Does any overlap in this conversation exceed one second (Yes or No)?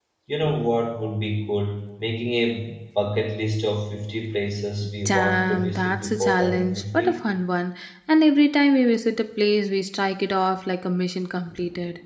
Yes